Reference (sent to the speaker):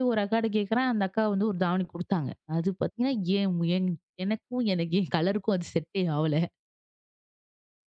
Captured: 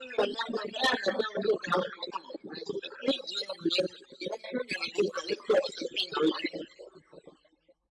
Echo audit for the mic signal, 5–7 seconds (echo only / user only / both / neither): echo only